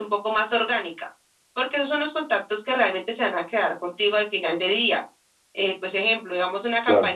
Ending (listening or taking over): listening